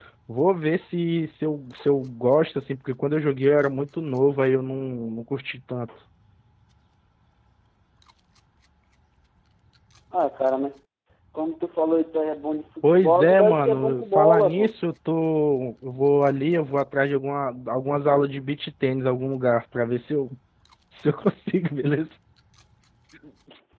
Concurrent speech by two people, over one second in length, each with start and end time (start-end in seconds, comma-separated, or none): 12.9-14.7